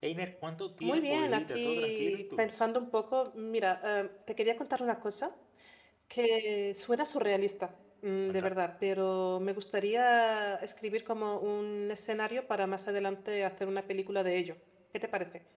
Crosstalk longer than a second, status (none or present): present